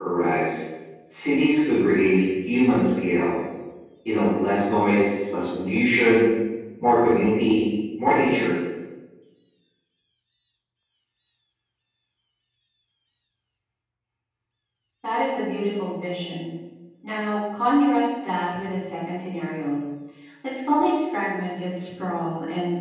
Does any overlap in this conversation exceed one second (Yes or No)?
No